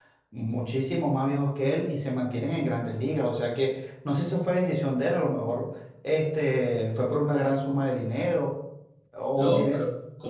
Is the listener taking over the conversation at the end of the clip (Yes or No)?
Yes